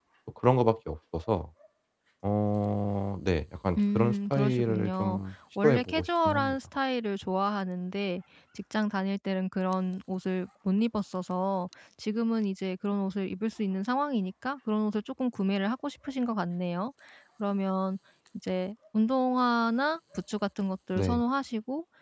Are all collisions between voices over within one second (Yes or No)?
No